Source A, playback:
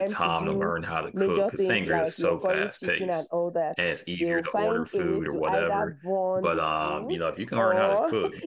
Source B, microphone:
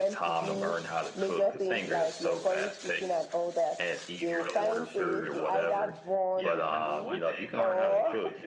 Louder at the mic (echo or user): echo